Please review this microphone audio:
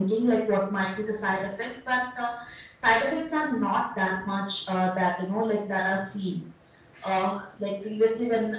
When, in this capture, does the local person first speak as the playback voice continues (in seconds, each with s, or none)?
none